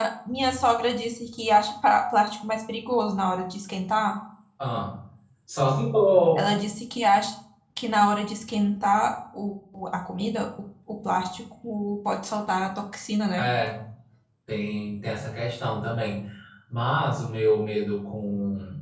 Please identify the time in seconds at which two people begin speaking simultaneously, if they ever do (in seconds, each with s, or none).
none